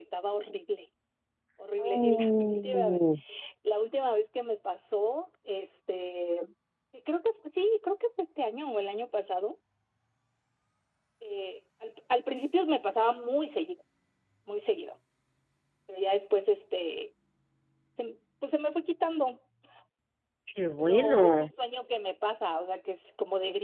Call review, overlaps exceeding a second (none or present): present